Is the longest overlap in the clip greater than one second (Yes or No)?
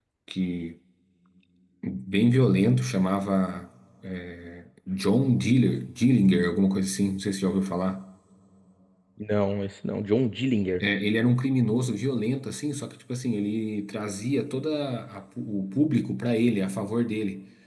No